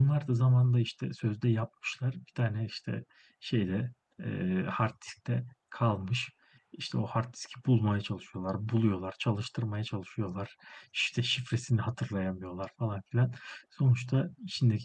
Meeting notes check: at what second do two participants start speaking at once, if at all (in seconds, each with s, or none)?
none